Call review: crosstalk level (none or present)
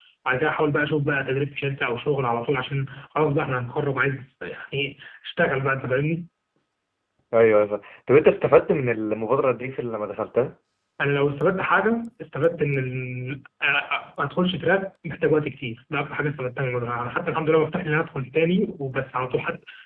none